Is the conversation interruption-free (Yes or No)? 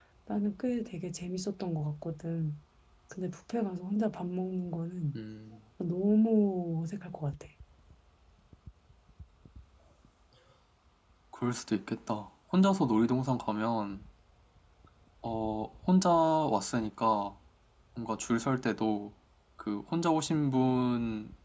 Yes